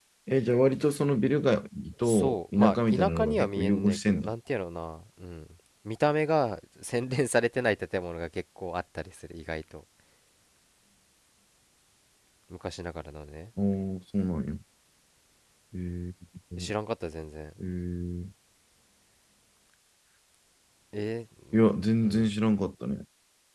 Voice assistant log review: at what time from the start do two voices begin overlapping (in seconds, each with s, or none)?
2.0 s